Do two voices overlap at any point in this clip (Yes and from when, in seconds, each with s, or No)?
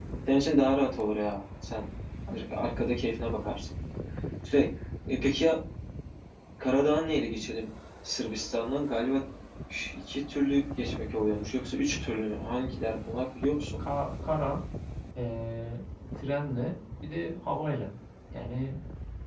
No